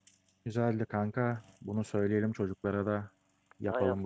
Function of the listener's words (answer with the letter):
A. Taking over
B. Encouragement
A